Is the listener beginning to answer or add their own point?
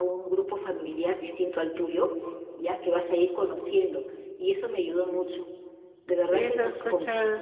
Yes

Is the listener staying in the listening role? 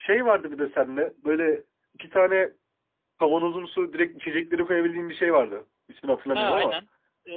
No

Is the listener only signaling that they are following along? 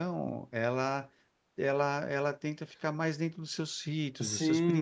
No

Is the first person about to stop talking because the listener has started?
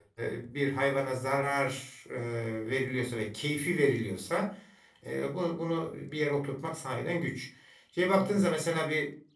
No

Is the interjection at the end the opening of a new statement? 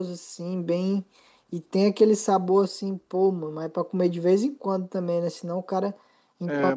Yes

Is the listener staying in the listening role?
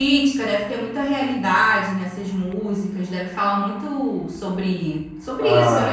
No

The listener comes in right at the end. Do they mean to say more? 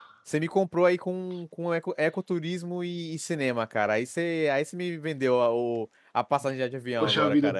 Yes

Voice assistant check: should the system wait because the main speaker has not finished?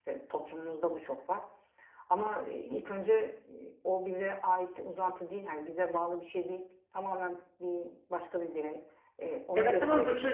No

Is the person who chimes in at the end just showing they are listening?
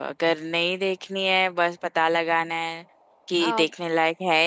Yes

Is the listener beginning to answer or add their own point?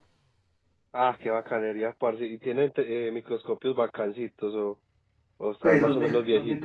Yes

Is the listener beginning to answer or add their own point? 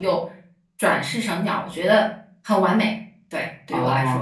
Yes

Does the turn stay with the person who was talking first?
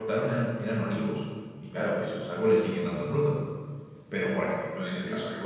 Yes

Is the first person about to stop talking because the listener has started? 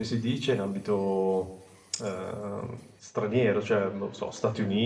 No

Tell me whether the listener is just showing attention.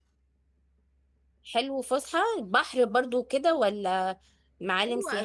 No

